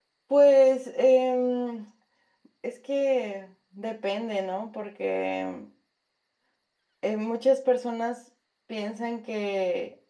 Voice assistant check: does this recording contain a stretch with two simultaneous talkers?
No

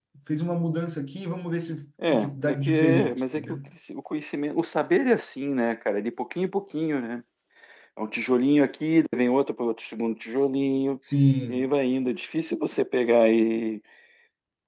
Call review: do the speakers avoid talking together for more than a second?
No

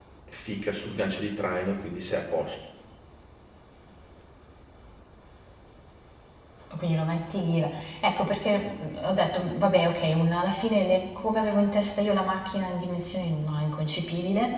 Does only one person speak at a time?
Yes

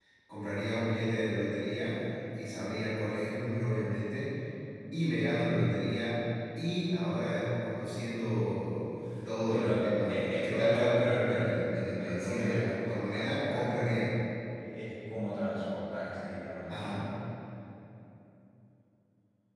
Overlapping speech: Yes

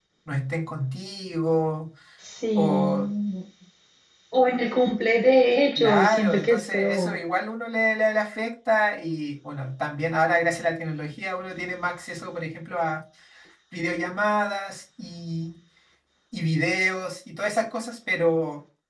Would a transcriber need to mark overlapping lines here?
Yes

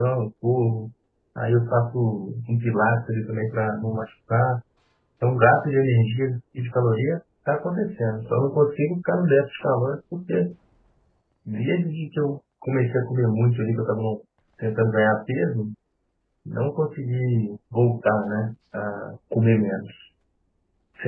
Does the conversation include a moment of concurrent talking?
No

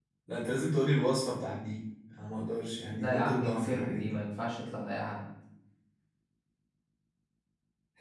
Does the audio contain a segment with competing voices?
Yes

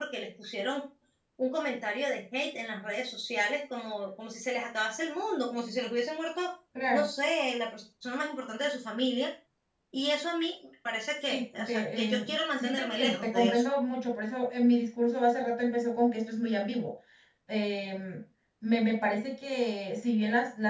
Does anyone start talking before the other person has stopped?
Yes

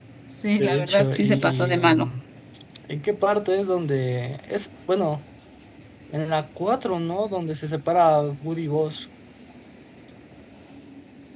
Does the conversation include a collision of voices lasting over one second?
Yes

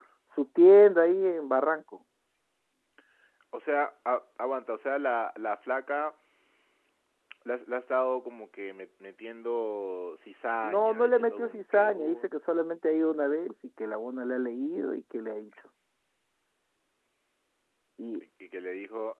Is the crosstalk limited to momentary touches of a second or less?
No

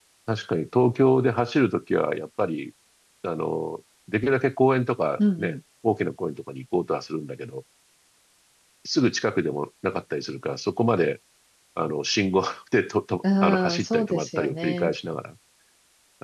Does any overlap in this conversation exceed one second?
Yes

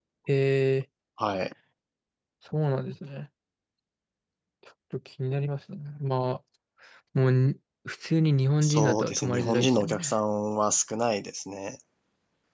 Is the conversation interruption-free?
No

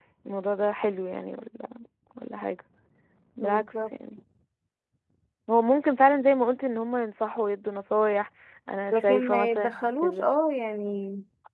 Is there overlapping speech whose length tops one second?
Yes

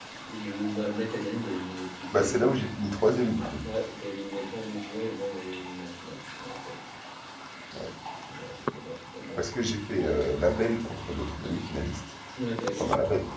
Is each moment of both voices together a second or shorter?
Yes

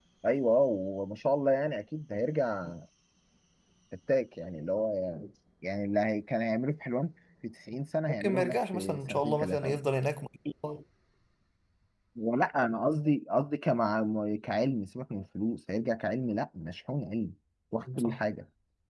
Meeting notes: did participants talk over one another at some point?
Yes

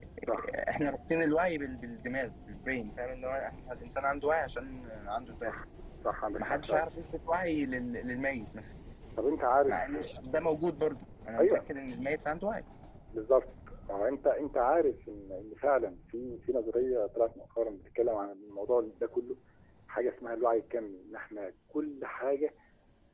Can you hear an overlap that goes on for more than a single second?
No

